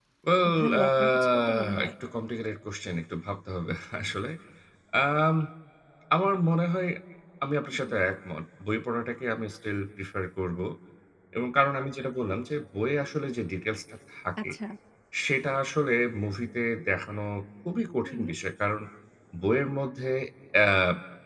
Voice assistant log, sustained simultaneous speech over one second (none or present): present